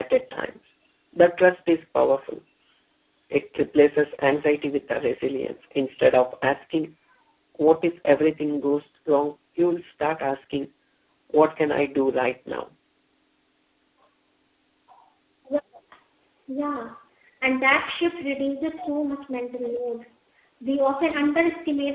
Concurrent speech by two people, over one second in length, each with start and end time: none

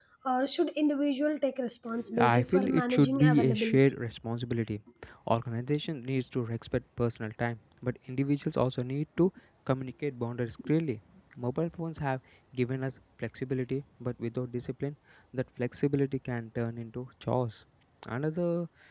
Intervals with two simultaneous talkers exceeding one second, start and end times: 2.2-3.8

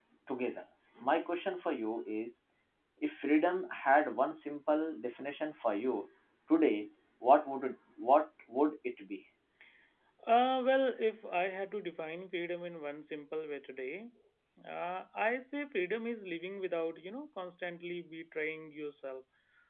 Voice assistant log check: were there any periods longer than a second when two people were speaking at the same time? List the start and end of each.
none

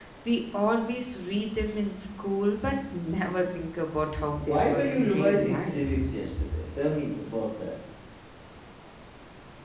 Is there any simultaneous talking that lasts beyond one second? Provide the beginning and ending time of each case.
4.4-5.9

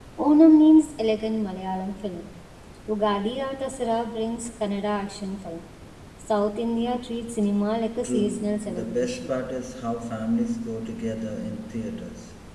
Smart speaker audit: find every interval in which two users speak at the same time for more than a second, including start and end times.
8.0-9.3

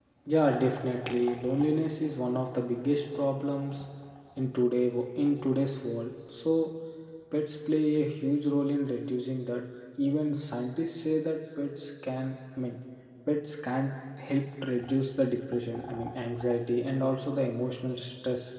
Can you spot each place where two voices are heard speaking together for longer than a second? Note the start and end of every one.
none

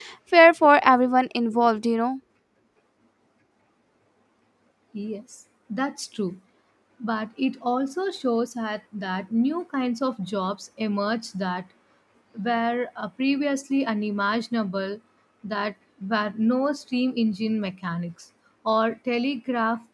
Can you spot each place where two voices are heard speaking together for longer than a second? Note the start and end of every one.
none

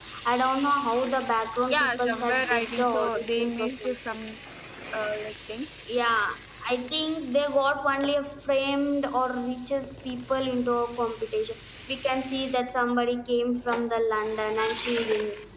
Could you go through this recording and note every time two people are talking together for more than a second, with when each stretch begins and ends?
1.7-3.9

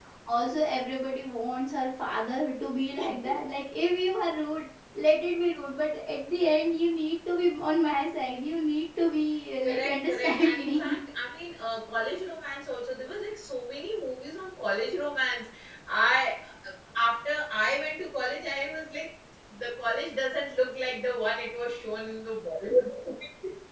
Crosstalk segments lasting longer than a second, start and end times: 9.6-11.0

